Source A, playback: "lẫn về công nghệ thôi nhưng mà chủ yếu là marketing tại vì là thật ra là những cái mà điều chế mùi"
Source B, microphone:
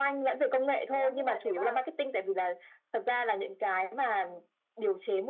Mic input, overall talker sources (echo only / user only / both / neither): both